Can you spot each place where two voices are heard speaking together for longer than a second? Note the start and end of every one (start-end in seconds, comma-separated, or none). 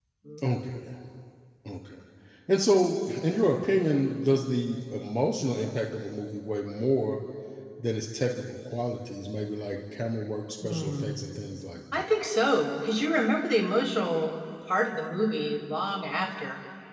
none